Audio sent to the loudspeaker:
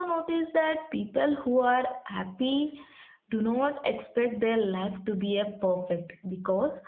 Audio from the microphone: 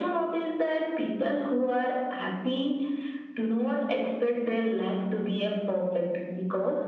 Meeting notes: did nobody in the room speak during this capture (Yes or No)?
Yes